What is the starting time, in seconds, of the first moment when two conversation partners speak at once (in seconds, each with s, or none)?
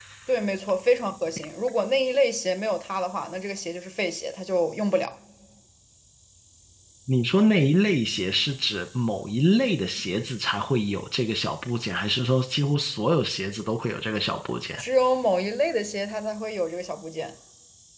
none